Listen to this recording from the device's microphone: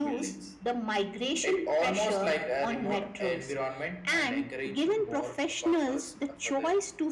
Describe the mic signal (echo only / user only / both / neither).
echo only